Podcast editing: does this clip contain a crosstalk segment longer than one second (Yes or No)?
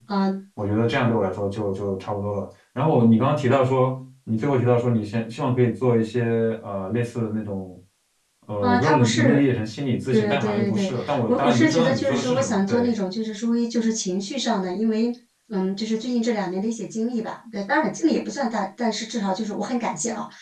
Yes